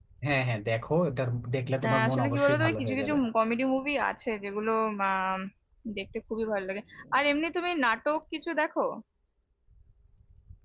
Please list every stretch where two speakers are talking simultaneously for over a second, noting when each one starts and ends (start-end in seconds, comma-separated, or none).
1.8-3.2